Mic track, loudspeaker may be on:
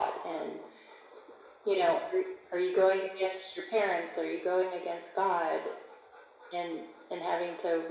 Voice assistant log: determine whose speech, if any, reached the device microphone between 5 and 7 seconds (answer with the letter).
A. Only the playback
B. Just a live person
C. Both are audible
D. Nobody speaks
A